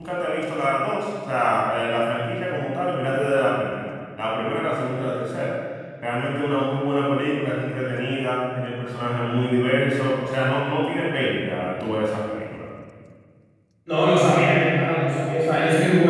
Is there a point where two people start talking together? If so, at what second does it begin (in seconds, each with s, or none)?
none